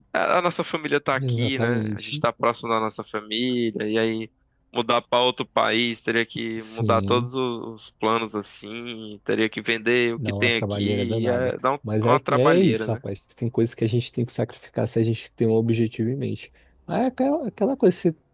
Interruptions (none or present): present